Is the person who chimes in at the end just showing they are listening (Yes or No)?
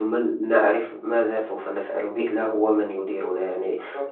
Yes